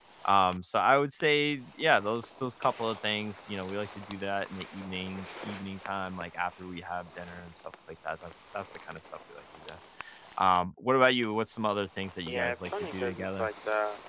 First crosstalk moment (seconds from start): 12 s

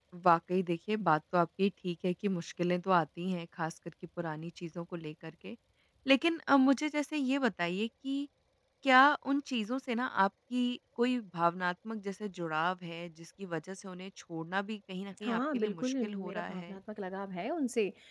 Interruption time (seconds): 15 s

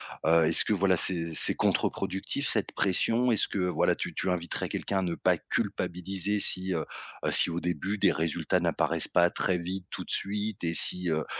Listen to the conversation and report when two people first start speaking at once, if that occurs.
none

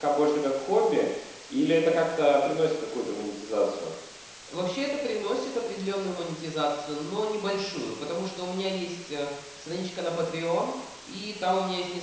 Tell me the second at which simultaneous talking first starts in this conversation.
none

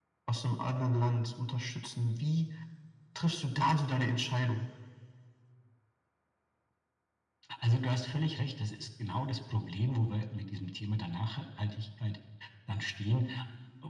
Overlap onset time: none

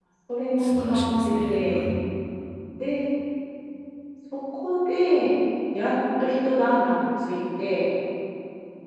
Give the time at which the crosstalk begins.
1 s

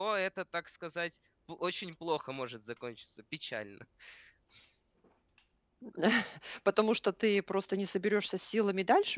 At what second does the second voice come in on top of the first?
none

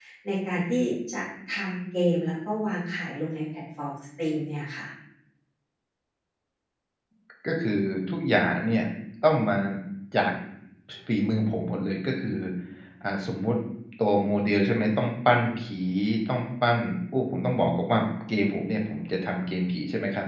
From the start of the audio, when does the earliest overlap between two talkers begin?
none

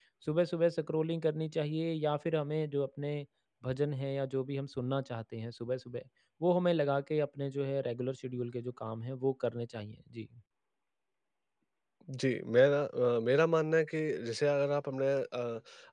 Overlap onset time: none

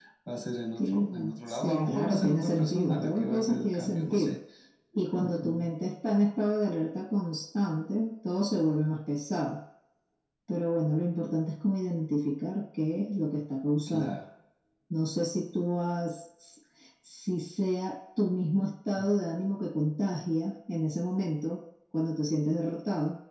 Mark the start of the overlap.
1 s

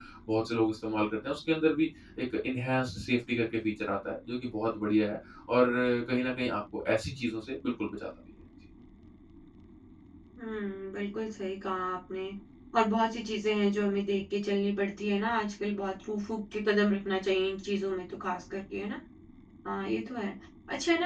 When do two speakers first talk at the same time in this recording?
none

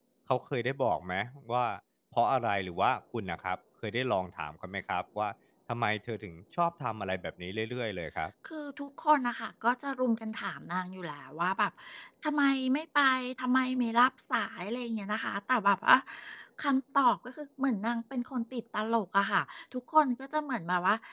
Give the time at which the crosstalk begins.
none

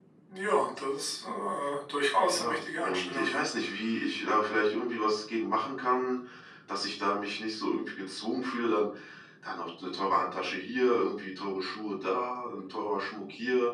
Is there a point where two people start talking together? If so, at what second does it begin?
2 s

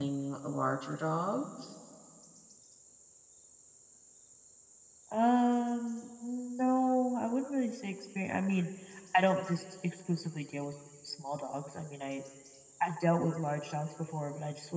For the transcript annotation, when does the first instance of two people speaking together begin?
none

